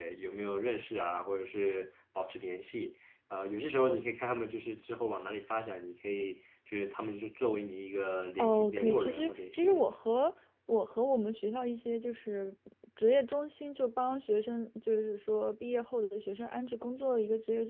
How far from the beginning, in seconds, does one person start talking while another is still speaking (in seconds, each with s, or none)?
8.4 s